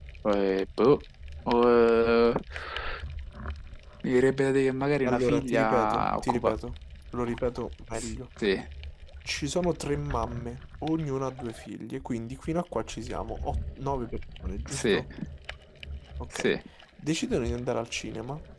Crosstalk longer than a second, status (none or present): present